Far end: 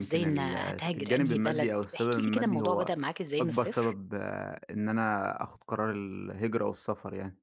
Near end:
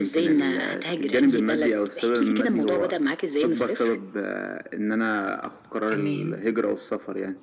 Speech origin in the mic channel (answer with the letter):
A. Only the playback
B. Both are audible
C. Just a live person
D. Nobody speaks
B